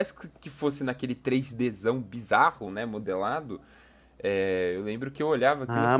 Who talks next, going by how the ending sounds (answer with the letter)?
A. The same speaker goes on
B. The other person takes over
B